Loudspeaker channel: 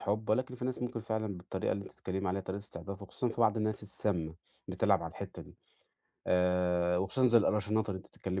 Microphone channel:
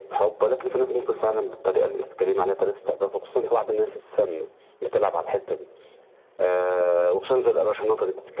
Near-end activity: none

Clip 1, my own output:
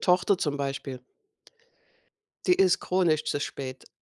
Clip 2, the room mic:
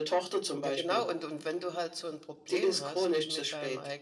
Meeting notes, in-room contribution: present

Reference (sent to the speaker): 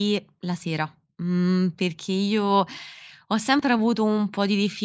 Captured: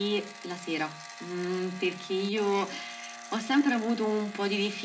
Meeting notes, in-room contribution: none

